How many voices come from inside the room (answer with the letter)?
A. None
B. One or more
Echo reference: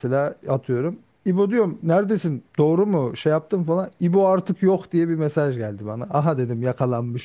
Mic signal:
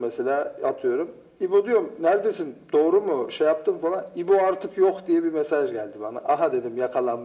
A